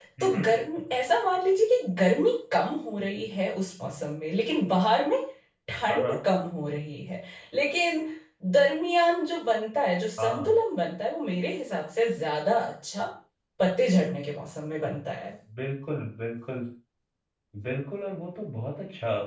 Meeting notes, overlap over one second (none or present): none